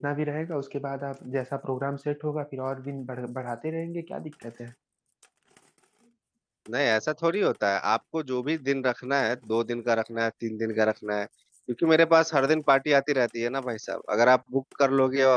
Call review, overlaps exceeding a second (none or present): none